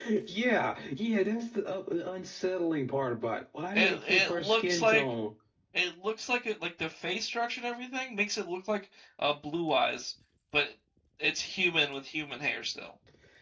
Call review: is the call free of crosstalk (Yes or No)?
No